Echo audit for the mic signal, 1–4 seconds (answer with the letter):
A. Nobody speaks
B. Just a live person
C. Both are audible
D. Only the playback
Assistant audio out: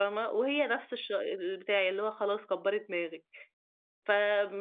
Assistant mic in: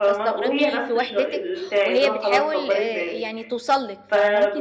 C